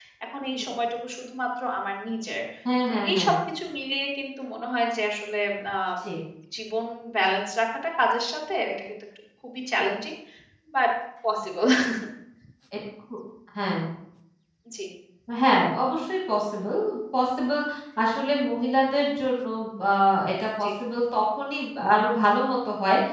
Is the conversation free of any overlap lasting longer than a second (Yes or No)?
Yes